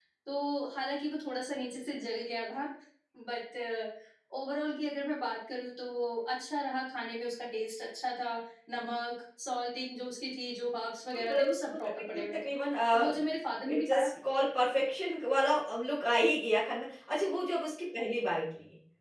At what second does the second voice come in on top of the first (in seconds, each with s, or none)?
11.1 s